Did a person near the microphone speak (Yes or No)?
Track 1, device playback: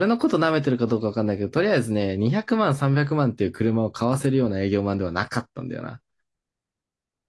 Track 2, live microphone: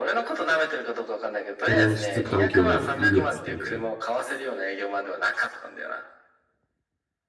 Yes